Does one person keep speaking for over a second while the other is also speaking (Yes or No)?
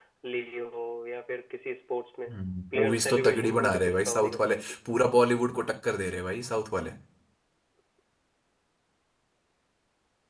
Yes